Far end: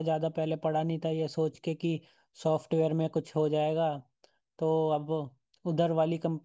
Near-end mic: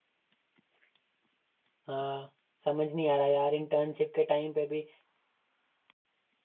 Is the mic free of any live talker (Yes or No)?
No